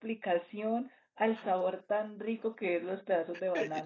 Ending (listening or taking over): taking over